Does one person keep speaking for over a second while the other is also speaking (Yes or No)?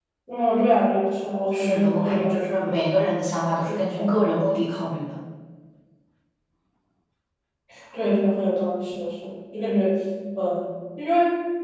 Yes